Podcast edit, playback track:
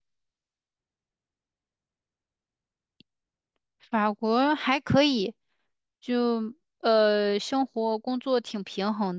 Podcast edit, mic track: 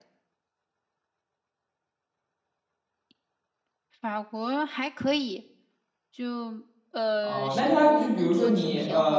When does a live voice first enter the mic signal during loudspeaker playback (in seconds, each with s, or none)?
7.2 s